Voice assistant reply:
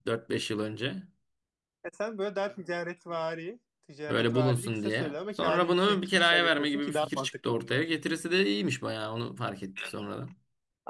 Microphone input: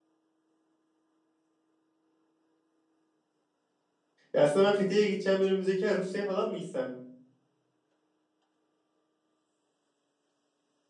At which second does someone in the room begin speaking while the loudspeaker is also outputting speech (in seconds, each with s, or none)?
4.3 s